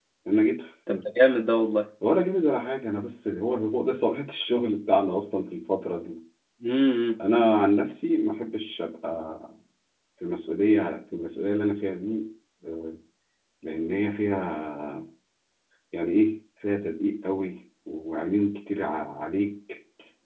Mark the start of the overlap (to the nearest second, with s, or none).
none